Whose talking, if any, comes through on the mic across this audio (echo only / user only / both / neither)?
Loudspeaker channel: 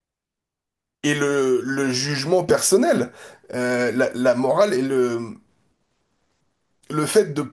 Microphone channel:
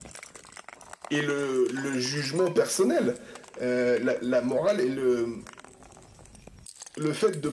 echo only